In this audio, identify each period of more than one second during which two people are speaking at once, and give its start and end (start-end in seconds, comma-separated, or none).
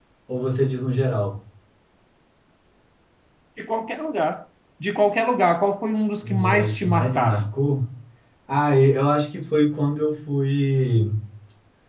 6.2-7.5